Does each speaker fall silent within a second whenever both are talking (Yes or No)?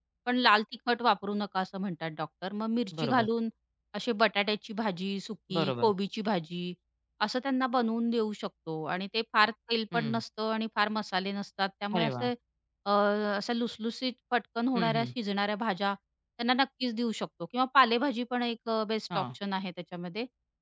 Yes